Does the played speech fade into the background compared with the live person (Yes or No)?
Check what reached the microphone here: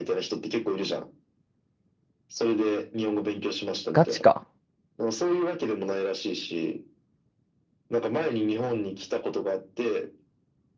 Yes